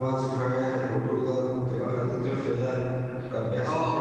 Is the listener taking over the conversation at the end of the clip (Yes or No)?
Yes